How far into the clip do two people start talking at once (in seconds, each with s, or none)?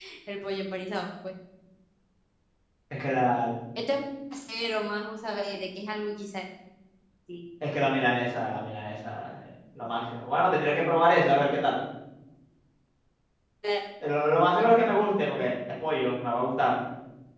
none